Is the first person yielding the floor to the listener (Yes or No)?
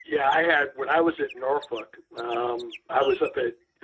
No